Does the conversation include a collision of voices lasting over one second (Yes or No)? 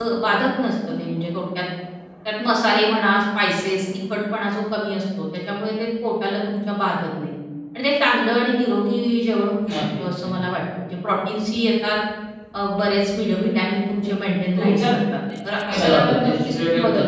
Yes